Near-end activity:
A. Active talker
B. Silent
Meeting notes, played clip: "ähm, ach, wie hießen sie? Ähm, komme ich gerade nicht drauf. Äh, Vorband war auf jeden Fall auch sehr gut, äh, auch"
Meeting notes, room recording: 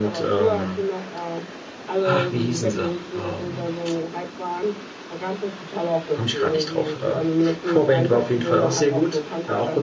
A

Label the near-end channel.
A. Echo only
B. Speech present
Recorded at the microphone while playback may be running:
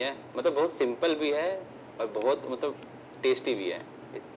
A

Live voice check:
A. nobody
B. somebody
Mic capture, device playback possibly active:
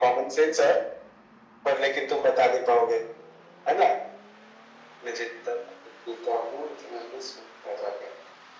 A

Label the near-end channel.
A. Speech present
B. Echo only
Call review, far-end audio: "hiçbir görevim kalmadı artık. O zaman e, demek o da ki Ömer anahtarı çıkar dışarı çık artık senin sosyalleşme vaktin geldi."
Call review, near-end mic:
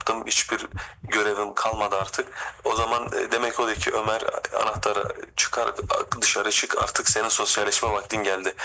B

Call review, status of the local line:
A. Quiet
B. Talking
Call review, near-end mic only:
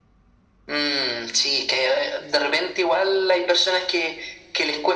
A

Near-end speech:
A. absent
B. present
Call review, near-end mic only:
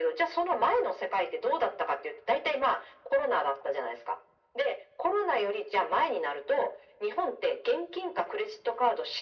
A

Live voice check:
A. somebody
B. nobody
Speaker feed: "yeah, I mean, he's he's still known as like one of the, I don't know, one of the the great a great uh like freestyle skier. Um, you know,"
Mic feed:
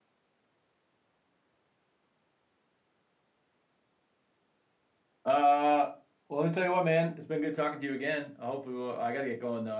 A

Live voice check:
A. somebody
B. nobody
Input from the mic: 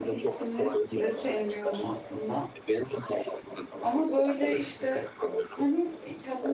A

